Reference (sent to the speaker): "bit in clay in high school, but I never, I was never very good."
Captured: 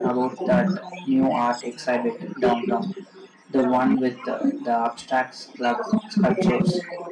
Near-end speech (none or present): present